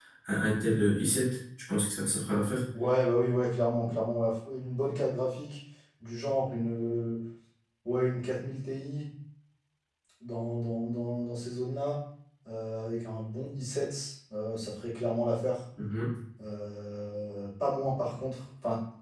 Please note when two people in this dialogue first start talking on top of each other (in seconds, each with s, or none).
none